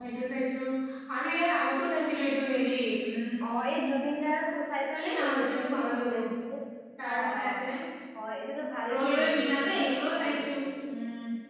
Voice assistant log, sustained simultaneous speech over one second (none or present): present